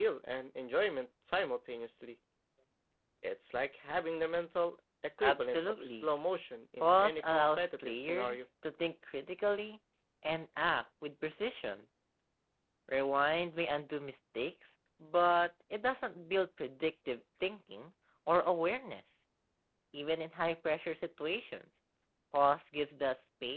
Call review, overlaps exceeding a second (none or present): present